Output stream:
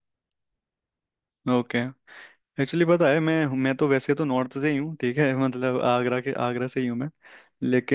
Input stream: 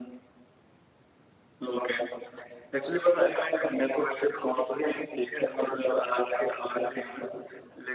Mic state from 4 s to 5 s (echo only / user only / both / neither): echo only